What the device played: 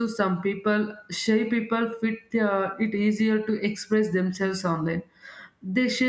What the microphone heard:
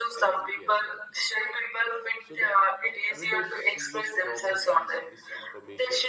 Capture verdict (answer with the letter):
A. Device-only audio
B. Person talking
B